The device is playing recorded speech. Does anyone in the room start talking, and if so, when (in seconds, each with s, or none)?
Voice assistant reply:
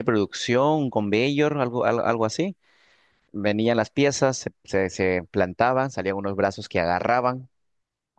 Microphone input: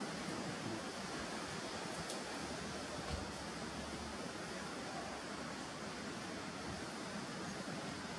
none